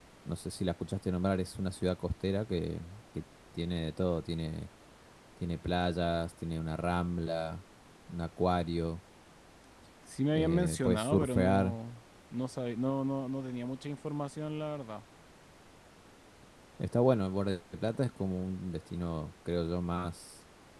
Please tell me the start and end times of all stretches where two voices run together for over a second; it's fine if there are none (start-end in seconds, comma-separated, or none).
10.3-11.8